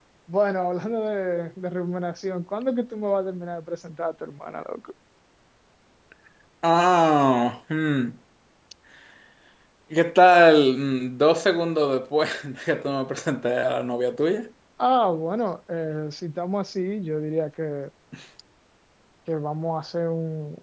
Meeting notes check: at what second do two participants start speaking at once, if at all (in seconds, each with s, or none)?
none